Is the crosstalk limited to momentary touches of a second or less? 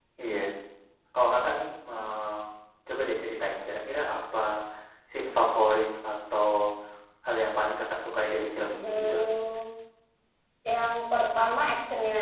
Yes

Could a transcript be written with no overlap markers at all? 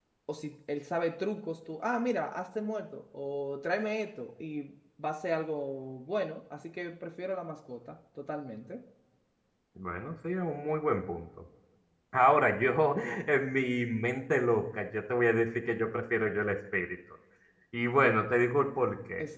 Yes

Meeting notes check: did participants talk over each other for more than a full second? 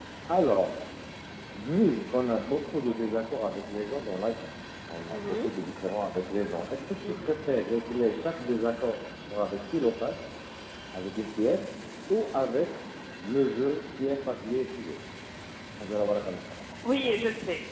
No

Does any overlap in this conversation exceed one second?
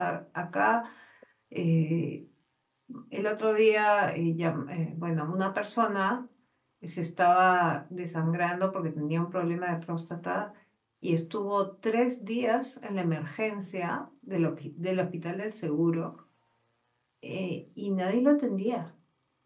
No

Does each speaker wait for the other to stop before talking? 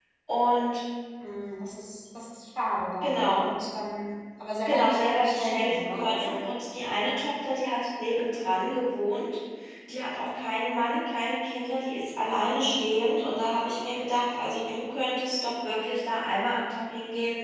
No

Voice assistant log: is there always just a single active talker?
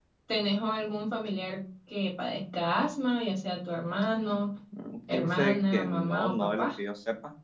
No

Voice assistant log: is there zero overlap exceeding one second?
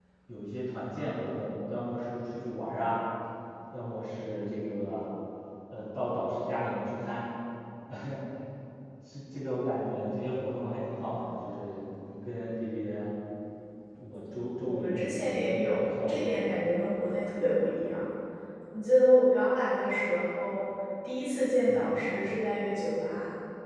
No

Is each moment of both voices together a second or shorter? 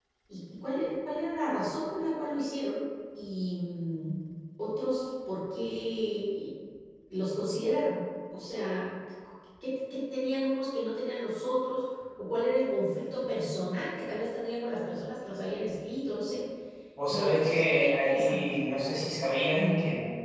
No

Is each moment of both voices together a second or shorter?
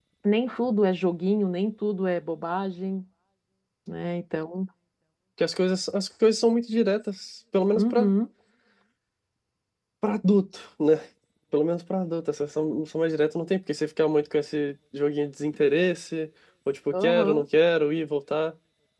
Yes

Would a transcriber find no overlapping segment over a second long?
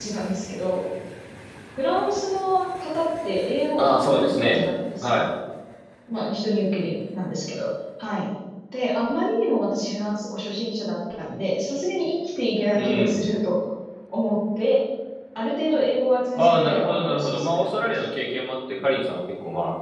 No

